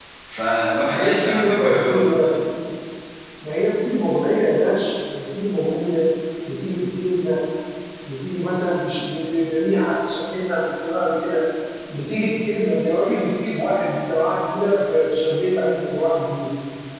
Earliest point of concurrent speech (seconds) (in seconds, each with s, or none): 0.8 s